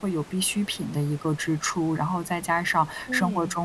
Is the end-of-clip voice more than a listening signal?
No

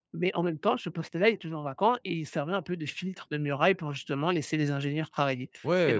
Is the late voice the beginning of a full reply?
Yes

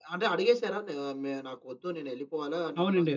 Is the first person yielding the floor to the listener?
Yes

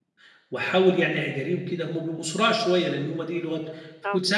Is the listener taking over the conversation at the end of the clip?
No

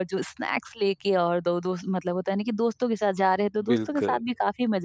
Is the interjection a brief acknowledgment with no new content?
Yes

